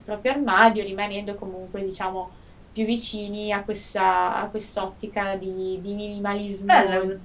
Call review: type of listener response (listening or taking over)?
taking over